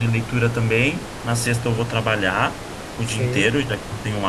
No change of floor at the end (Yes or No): Yes